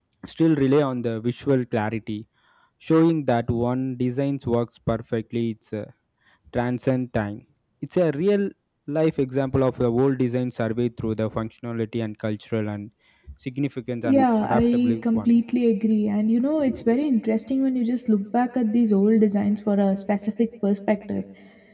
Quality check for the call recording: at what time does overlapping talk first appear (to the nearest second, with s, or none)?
14 s